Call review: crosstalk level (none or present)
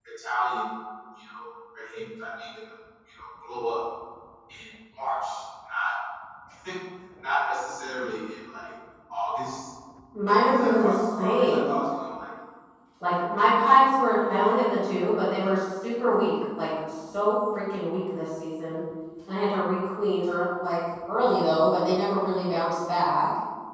present